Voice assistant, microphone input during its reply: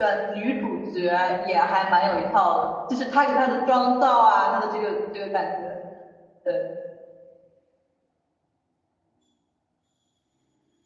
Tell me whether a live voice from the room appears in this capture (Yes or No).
Yes